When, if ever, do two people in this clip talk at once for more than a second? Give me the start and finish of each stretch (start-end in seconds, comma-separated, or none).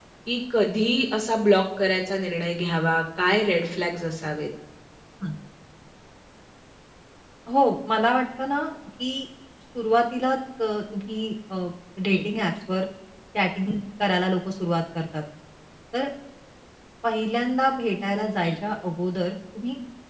none